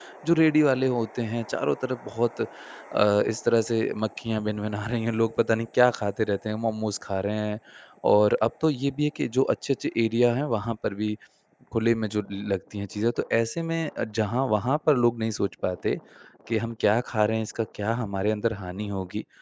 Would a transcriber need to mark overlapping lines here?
No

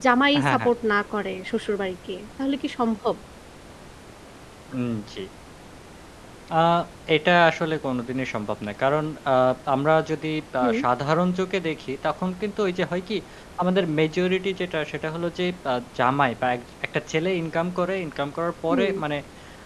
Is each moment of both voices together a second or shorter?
Yes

